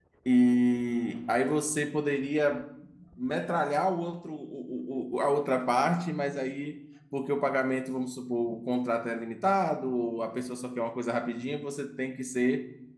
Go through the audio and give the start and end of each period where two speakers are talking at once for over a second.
none

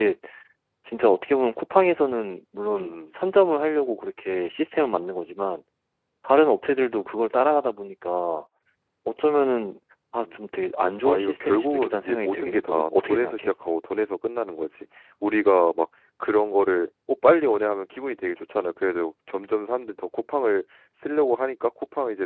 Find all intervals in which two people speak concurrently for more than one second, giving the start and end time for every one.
11.1-13.5

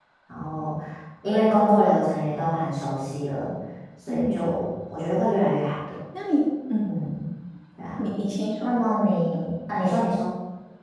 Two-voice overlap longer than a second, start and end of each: none

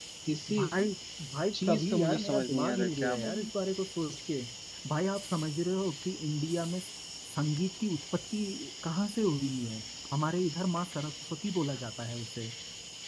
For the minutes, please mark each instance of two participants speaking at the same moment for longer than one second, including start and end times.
1.7-3.5

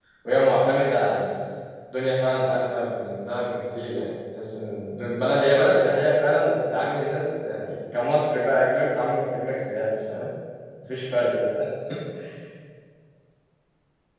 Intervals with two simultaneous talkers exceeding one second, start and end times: none

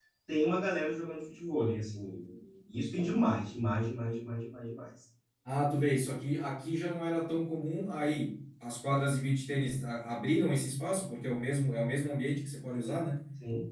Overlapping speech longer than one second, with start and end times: none

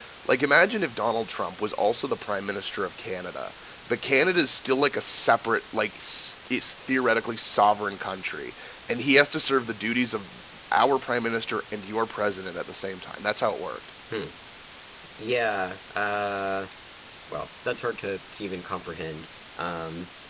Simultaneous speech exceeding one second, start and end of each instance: none

